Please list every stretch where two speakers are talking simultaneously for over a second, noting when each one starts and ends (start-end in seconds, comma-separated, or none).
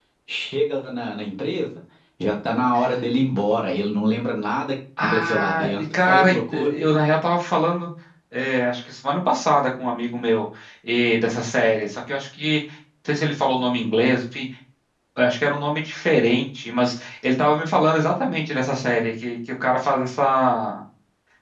5.0-6.7